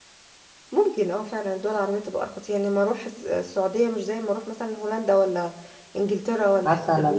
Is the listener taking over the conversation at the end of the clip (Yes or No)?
Yes